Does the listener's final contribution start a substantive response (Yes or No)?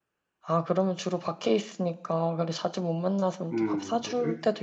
Yes